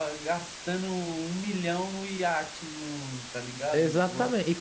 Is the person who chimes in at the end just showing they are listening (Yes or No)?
No